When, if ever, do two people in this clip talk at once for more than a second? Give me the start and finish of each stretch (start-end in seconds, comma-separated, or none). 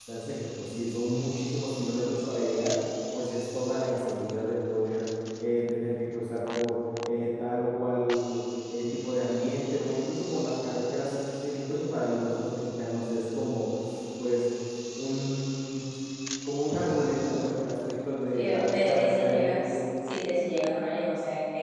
18.3-19.8